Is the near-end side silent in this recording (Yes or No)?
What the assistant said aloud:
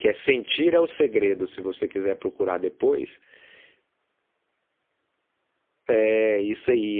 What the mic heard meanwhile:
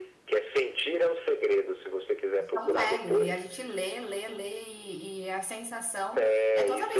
No